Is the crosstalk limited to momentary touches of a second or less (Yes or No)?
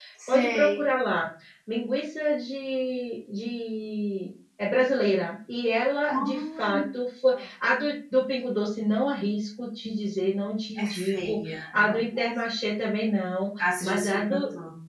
No